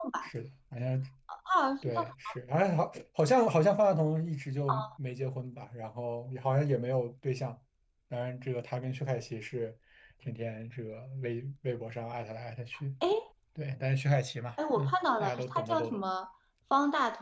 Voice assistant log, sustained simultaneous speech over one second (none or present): present